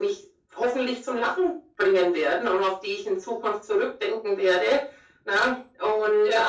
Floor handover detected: No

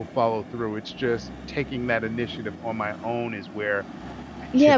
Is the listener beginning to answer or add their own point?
Yes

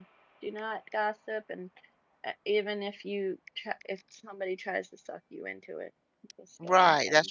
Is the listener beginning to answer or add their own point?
Yes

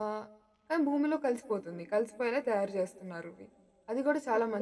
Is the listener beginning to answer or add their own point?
Yes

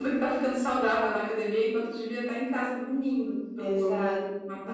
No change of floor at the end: No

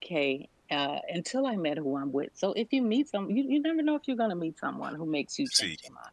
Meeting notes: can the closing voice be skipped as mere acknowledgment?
No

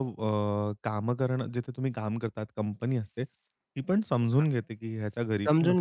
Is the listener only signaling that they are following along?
No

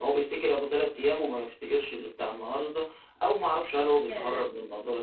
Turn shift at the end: No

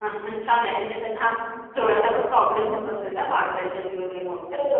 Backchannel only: No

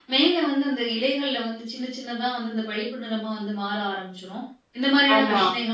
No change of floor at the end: Yes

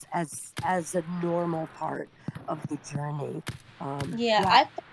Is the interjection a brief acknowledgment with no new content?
No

